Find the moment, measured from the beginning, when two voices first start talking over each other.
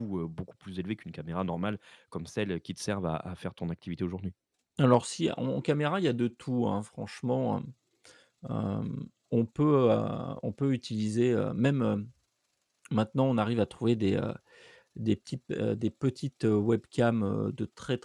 none

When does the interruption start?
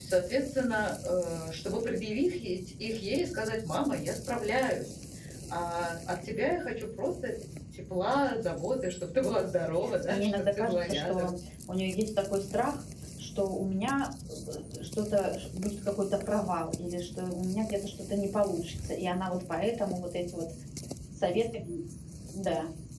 10.1 s

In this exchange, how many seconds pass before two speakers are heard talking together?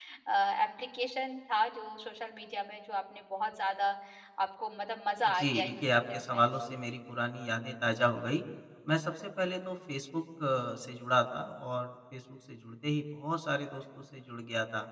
5.2 s

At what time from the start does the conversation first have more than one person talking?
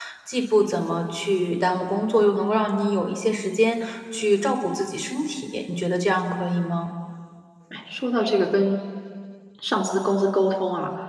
none

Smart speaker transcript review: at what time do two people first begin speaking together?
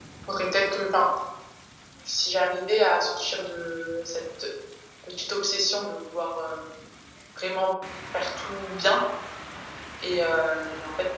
none

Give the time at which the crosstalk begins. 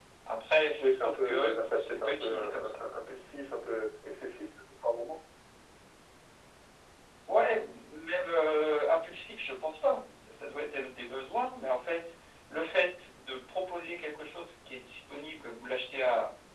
0.8 s

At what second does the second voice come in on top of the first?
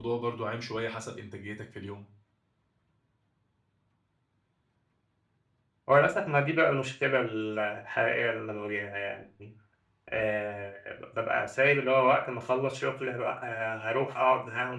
none

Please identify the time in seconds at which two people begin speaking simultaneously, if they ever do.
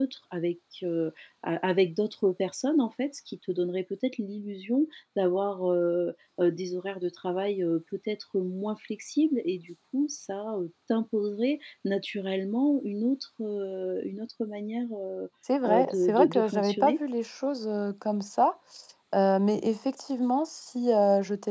15.7 s

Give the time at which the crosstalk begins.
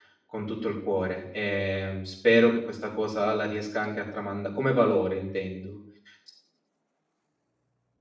none

